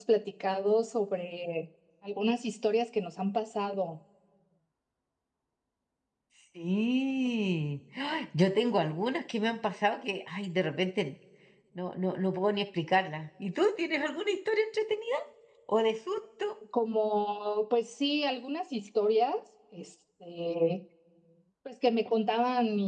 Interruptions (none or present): none